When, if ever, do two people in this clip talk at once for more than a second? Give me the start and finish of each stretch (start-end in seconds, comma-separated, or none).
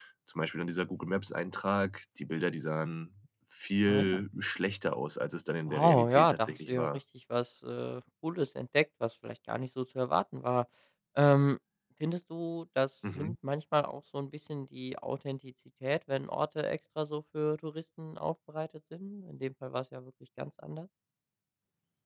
5.7-7.0